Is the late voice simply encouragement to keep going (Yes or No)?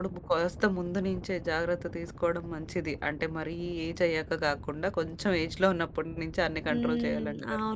No